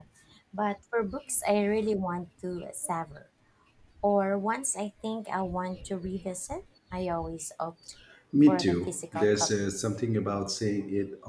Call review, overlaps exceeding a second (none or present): present